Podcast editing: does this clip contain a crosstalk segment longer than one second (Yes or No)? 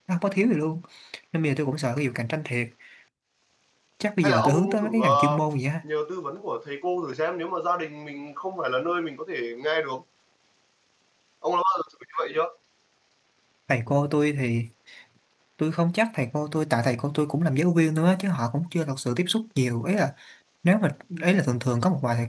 Yes